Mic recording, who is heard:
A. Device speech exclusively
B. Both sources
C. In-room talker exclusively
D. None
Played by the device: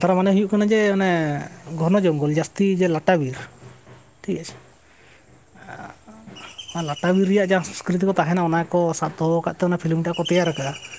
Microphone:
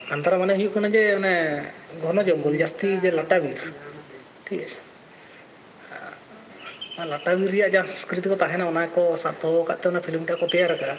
B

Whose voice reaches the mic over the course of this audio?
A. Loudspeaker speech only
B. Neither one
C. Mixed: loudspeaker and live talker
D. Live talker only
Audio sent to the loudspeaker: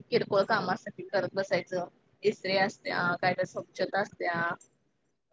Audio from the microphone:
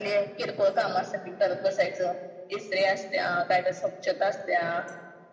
A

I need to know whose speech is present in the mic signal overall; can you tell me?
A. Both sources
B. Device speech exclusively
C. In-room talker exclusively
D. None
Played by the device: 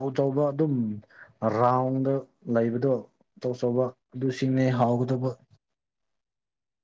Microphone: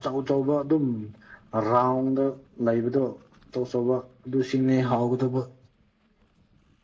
B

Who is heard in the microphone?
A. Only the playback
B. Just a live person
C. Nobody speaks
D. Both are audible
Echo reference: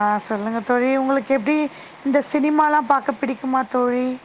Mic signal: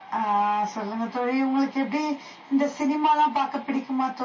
A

